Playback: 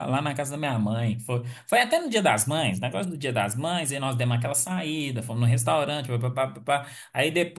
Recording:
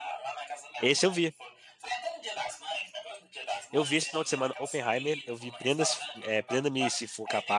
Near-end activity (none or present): present